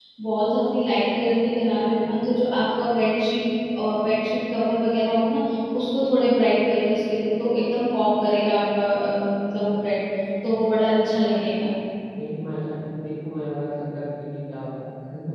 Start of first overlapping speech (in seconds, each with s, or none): none